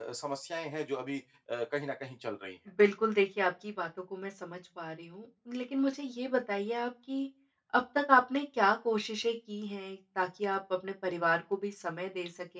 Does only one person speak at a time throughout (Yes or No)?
Yes